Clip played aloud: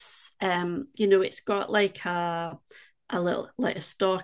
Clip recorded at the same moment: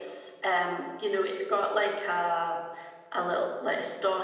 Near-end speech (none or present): none